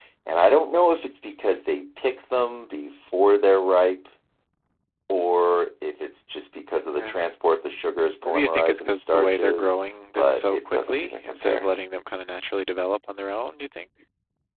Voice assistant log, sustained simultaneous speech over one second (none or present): present